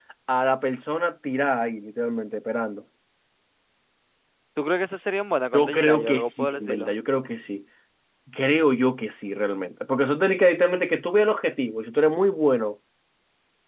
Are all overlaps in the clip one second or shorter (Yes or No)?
No